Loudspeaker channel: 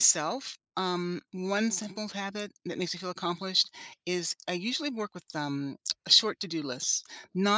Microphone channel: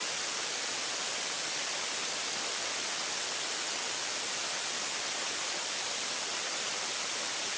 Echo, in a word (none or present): none